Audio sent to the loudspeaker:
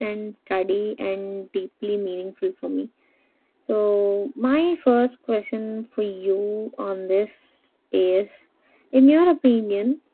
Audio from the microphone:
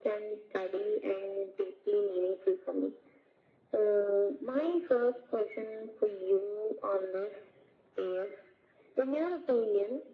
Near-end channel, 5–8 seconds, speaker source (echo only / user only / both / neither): echo only